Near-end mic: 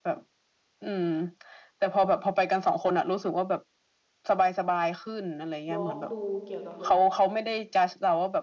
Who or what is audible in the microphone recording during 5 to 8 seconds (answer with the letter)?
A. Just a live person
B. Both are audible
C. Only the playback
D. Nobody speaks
B